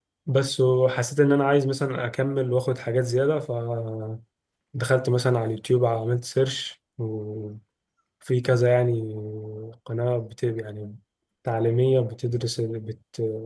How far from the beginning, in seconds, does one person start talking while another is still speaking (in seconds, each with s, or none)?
none